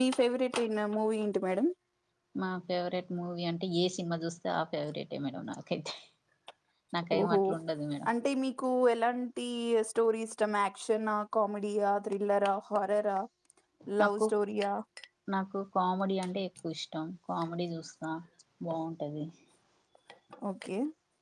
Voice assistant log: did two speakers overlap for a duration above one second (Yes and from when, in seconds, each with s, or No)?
No